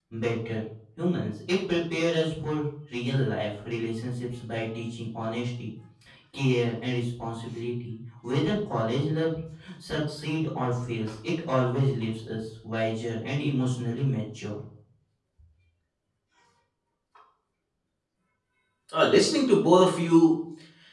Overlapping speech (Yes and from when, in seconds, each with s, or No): No